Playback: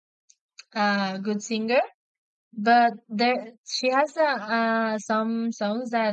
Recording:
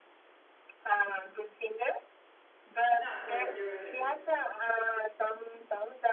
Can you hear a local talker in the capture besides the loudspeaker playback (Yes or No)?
Yes